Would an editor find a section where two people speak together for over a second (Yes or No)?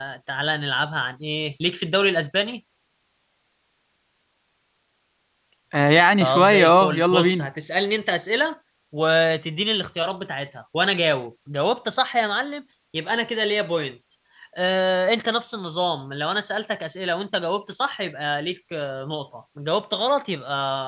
Yes